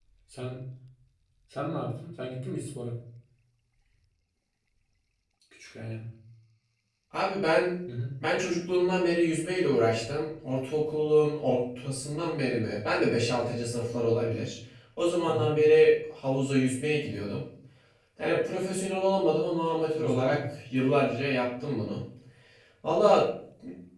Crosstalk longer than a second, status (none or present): none